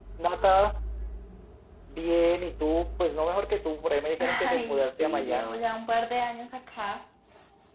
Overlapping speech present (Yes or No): Yes